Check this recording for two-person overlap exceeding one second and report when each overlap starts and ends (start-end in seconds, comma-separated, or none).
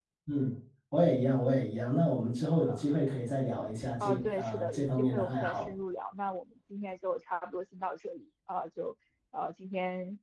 4.0-5.7